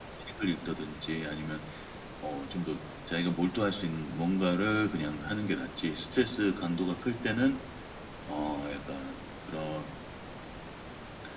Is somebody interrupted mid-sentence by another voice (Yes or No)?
No